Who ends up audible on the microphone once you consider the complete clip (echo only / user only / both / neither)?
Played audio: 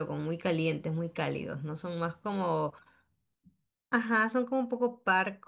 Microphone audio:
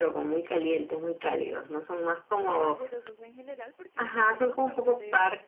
both